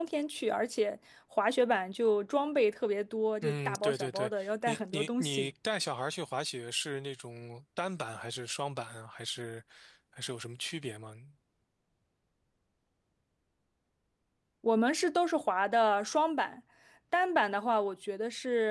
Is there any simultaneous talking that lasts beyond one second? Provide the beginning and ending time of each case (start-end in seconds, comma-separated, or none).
3.4-5.5